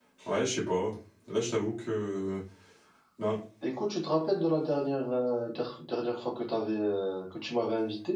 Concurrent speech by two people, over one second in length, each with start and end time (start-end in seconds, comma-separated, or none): none